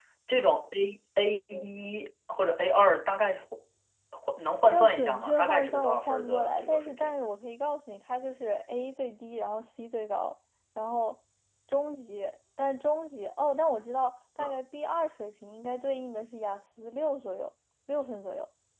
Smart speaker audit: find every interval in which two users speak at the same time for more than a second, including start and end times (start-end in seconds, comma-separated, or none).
4.7-7.2